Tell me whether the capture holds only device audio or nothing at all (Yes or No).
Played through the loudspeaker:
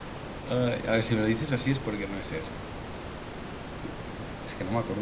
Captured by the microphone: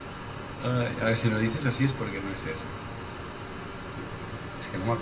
Yes